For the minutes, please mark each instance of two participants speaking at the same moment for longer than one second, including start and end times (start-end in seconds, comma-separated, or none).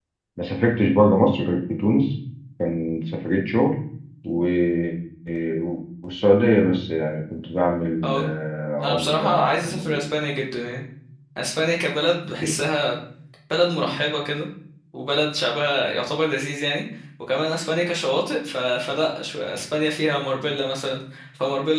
8.8-10.0